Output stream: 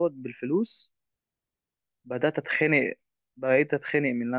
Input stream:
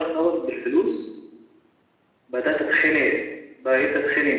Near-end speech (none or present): none